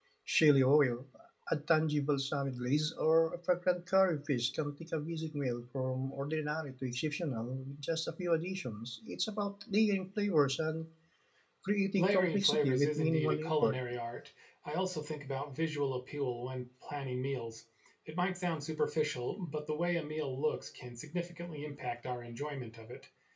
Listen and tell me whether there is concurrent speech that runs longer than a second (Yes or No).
Yes